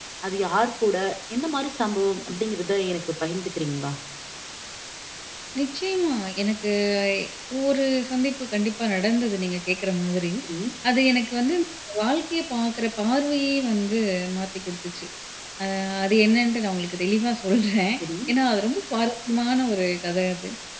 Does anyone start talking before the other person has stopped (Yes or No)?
No